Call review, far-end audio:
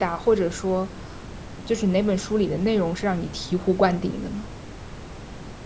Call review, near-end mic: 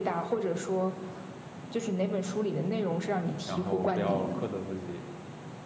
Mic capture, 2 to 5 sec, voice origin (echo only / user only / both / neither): both